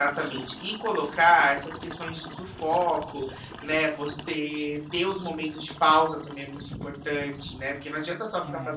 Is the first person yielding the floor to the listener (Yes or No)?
No